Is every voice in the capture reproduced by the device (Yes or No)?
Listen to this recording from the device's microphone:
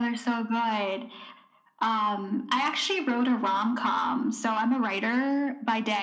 Yes